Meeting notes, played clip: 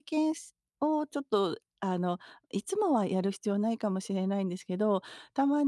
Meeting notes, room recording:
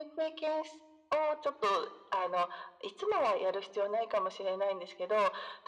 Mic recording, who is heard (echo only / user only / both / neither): echo only